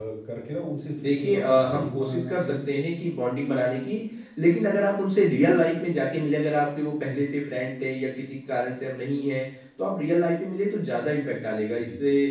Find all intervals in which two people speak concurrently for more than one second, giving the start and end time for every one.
1.0-2.7

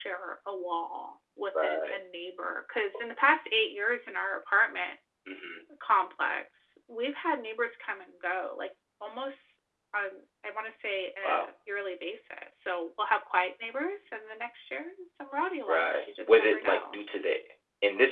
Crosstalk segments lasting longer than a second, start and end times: 15.7-17.0

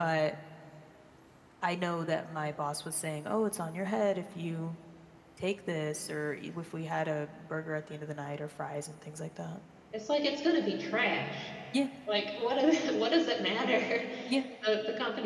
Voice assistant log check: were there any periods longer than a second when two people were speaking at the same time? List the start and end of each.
none

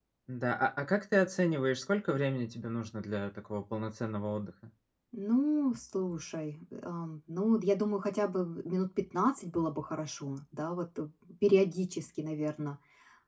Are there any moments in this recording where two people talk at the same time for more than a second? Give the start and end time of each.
none

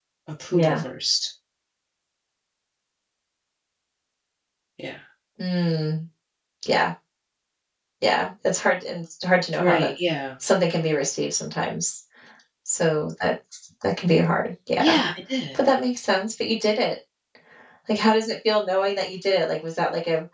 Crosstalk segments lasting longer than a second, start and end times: none

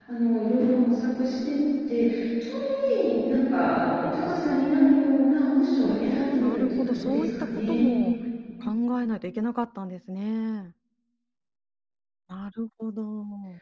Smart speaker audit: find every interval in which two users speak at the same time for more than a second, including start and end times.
5.8-7.8

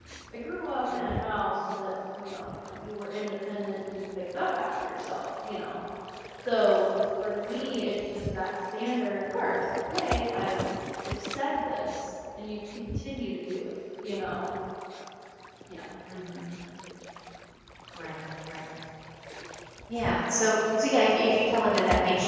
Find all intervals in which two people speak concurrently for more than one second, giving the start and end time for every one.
none

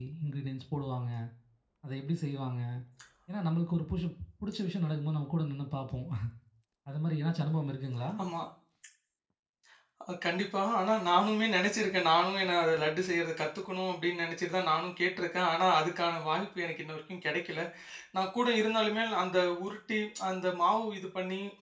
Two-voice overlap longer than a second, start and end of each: none

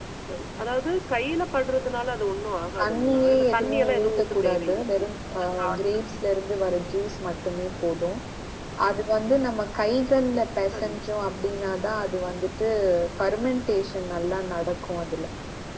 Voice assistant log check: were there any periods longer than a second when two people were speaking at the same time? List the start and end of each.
2.8-5.1

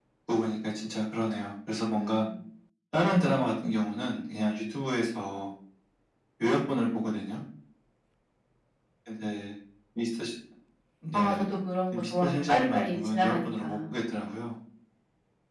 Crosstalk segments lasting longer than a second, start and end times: 11.9-13.8

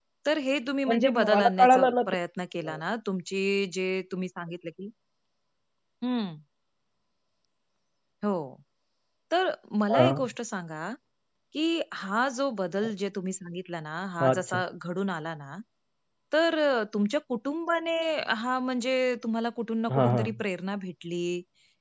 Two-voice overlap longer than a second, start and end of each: 0.9-2.1

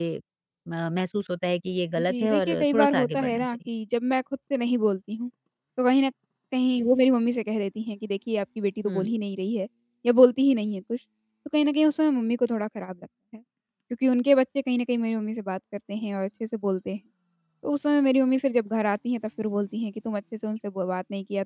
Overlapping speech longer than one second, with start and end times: 2.0-3.7

